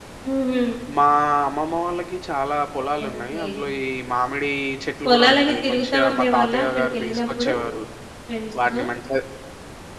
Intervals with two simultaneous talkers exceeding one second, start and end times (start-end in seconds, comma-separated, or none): 5.0-7.5